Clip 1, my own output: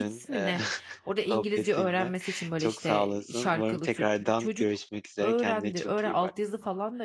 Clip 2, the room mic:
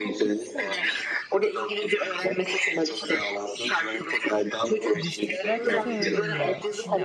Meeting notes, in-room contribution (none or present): present